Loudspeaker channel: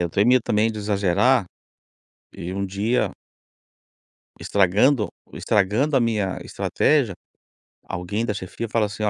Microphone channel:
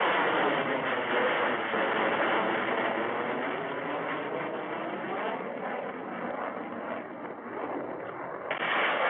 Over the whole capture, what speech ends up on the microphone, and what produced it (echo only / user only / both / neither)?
neither